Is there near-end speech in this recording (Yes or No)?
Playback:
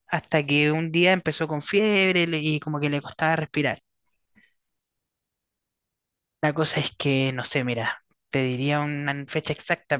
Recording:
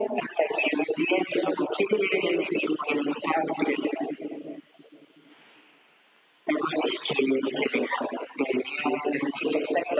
No